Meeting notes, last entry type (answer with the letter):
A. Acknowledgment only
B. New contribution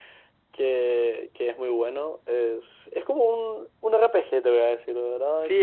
B